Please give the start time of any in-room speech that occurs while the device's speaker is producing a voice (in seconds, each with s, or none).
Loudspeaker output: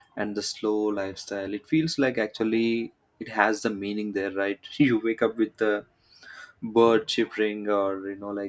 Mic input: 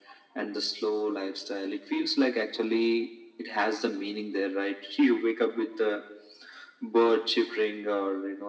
none